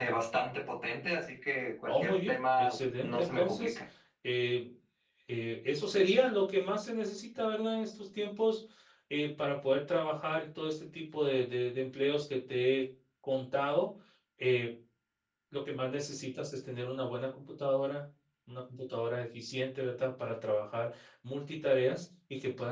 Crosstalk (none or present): present